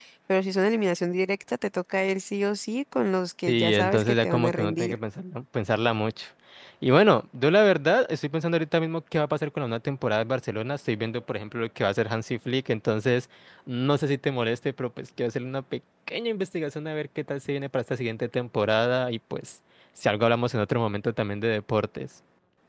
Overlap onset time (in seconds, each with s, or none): 3.5 s